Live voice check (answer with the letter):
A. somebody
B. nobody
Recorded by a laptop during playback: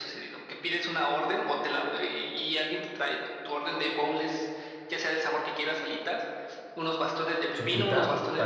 A